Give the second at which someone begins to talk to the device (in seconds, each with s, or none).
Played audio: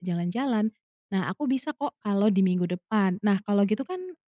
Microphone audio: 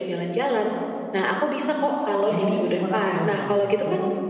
2.3 s